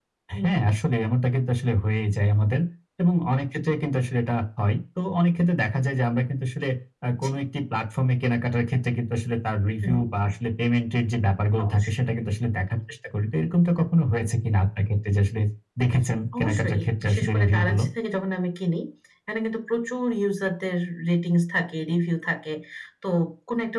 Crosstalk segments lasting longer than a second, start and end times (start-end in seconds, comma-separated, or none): 16.4-17.8